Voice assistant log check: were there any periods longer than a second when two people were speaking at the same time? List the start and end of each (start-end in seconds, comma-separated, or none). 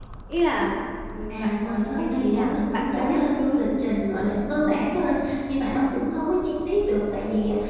1.3-3.6